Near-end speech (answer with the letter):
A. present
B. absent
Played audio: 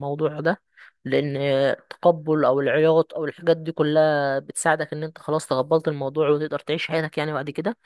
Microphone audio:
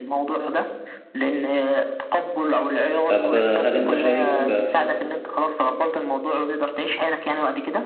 A